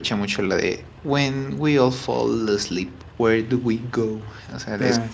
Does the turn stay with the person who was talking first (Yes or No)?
Yes